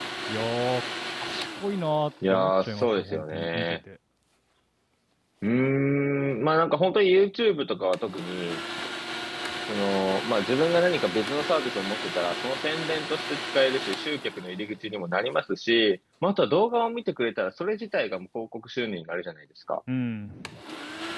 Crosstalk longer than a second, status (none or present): present